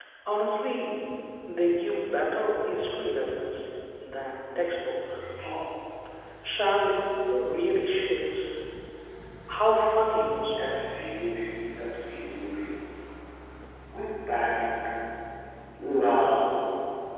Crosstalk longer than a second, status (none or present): none